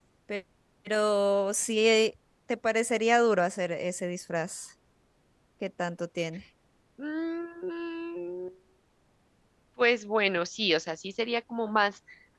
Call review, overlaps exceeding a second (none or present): none